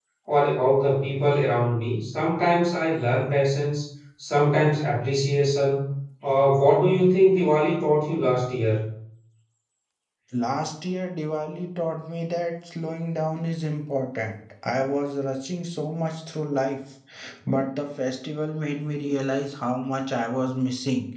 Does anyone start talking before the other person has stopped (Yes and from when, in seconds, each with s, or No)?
No